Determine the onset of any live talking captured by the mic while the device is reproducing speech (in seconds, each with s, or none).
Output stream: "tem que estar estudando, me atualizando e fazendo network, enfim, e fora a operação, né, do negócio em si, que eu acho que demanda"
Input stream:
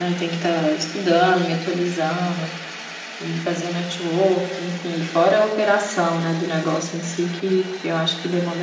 none